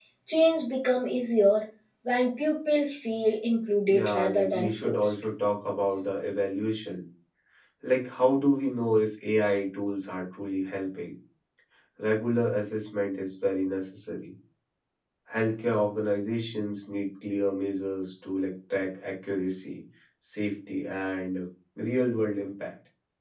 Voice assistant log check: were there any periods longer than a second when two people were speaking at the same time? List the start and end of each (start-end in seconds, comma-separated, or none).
3.9-5.1